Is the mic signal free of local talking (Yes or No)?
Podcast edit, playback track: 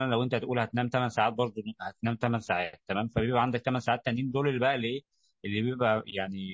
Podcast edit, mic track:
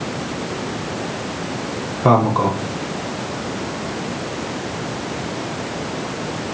No